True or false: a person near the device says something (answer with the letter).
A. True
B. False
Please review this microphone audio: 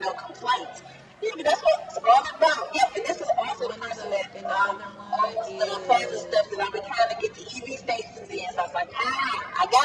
A